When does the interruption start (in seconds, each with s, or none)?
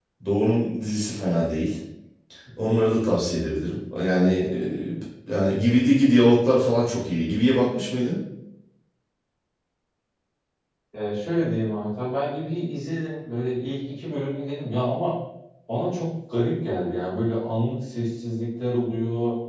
none